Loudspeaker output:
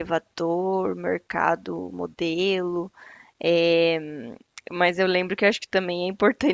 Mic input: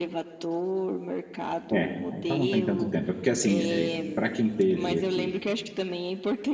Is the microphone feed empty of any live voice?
No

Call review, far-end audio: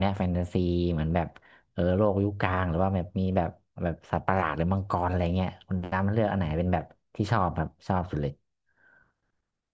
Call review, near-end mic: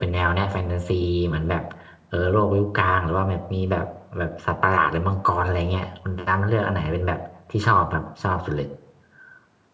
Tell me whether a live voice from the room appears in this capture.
No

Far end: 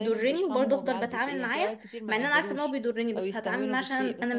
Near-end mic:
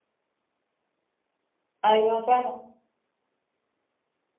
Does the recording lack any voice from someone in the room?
No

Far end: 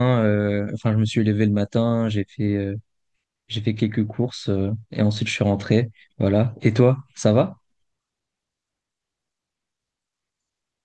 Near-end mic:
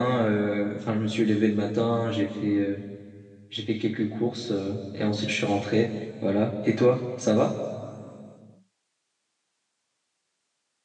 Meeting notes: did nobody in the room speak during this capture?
Yes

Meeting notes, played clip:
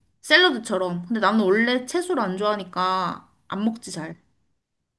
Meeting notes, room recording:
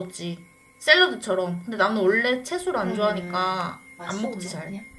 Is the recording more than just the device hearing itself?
Yes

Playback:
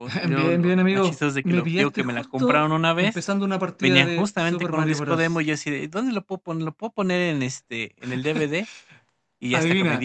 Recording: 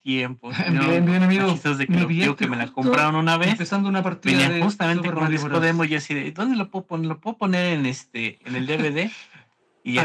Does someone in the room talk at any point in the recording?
No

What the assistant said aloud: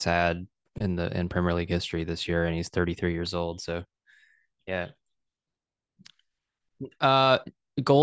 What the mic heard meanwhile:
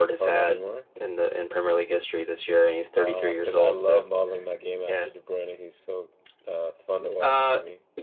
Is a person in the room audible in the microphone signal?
Yes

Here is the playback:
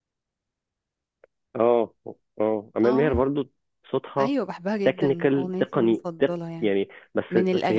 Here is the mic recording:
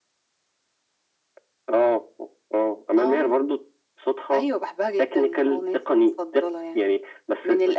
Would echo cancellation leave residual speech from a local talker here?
No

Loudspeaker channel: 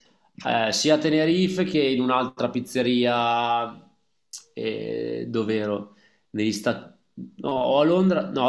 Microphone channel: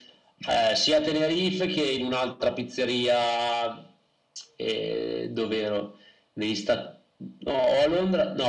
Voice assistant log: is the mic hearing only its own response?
Yes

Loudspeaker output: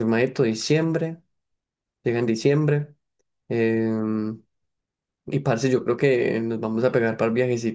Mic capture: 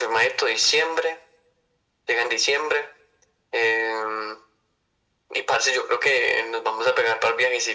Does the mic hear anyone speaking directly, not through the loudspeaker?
No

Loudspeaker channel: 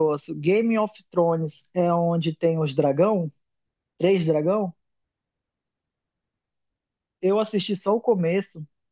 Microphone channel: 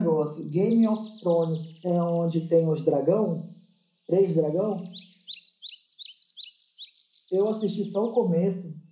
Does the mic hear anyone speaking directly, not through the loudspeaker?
No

